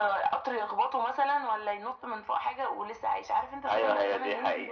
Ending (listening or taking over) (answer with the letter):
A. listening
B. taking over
B